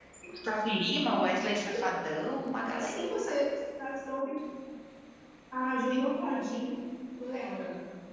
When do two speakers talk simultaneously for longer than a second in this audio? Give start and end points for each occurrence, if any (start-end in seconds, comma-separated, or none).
none